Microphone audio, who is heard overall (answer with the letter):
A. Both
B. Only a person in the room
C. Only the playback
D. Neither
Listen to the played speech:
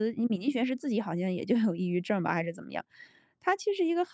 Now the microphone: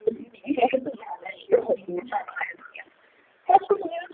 A